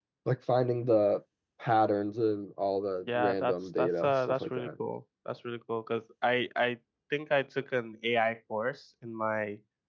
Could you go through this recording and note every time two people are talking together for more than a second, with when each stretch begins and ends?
3.2-4.7

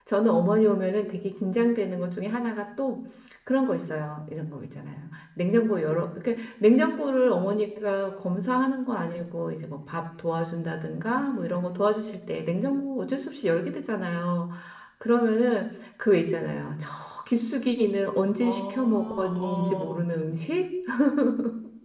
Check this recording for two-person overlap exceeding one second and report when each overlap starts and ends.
18.4-19.9

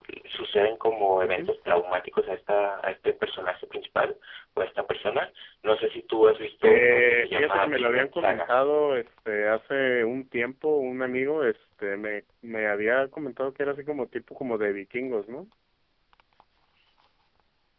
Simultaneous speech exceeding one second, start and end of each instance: 6.6-8.5

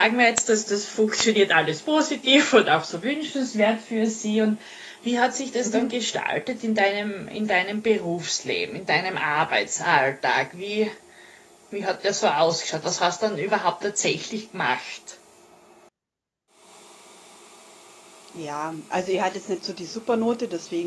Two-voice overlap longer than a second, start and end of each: none

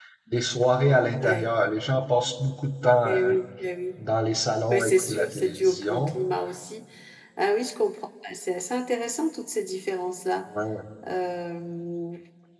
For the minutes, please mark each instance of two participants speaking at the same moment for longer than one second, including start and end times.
4.7-6.1

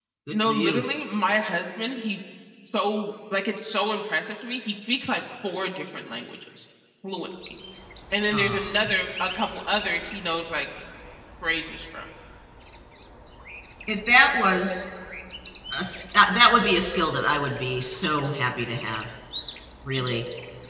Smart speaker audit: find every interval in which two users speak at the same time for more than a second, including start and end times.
none

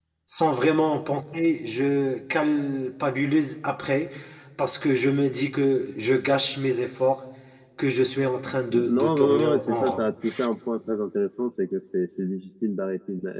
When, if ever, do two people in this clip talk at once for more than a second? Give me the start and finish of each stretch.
8.7-10.0

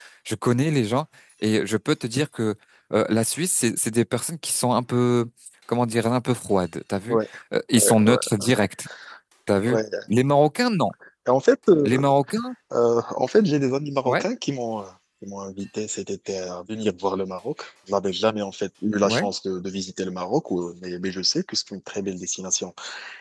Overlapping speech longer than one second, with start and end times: none

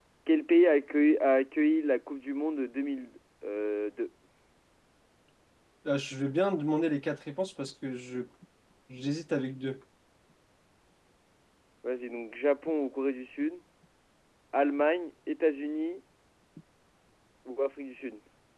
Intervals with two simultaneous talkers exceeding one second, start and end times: none

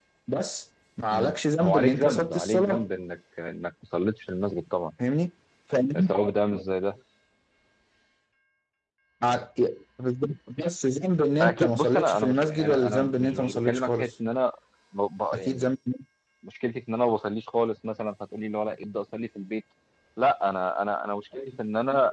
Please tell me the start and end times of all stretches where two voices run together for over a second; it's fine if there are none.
1.1-2.9, 11.4-14.1

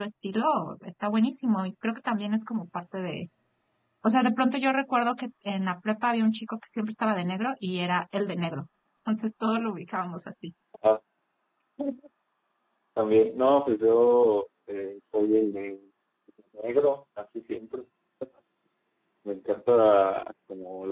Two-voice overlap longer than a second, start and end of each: none

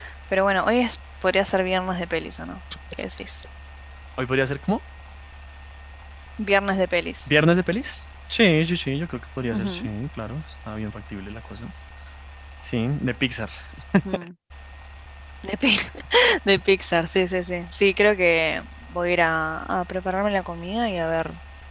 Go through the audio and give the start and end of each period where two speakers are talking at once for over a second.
none

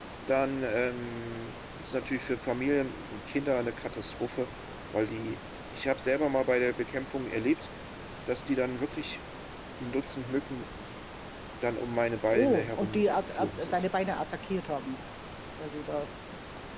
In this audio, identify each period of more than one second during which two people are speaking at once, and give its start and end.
12.3-13.8

